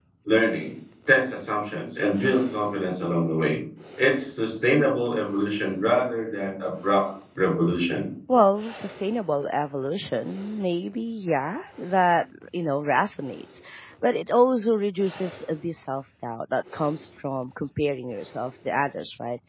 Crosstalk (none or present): none